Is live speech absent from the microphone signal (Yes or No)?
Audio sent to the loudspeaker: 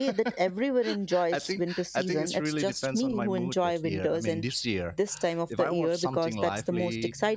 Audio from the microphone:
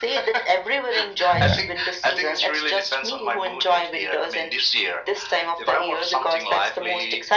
No